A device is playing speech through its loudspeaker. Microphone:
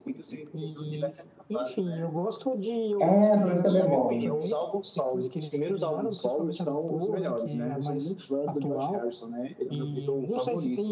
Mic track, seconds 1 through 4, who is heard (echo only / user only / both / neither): both